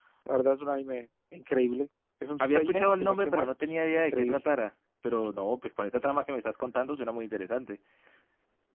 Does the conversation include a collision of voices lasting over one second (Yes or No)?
Yes